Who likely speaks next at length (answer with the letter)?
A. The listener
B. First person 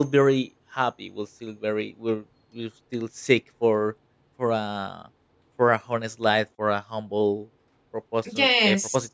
B